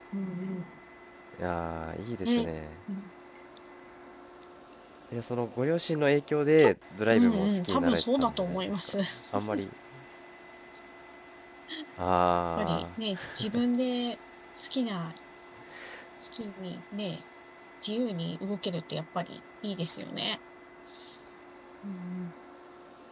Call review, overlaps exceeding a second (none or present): present